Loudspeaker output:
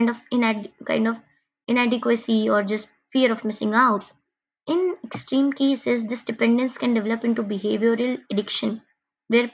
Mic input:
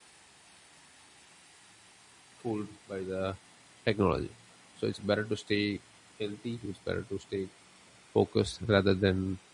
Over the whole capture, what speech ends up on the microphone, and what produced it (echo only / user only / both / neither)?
user only